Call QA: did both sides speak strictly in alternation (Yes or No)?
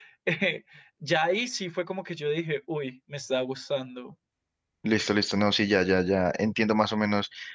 Yes